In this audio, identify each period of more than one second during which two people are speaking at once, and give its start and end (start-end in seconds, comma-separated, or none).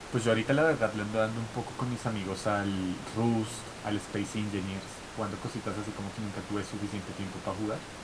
none